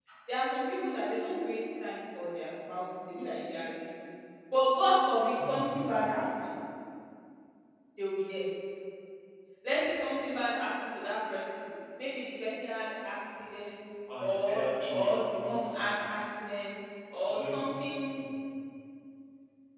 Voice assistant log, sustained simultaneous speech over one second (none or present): present